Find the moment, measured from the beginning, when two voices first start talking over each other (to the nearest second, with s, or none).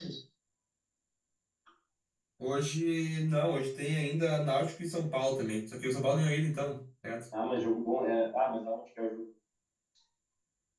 none